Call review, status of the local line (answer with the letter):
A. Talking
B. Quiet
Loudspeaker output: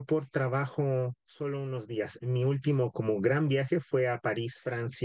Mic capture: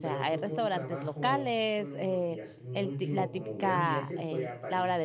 A